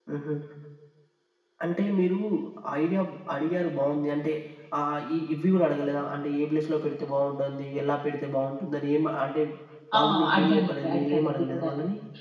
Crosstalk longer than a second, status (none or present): present